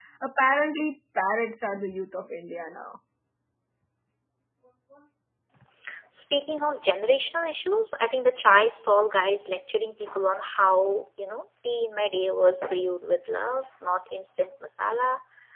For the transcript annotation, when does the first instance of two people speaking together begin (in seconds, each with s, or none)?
none